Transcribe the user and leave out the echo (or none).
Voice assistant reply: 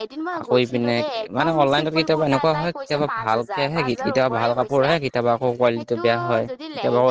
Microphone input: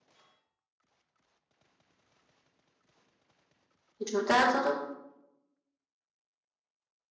জোতাটো